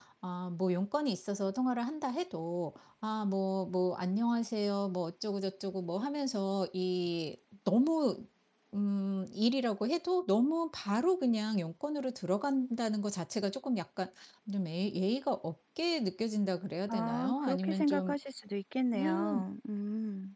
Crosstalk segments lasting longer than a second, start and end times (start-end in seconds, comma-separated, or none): 16.9-18.2